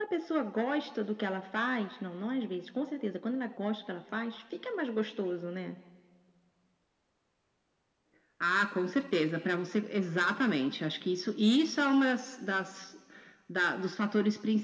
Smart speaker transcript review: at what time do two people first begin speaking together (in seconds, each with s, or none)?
none